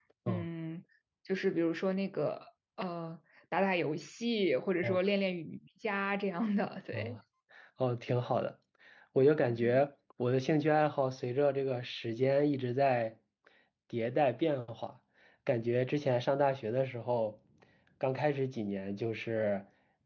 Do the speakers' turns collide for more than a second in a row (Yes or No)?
No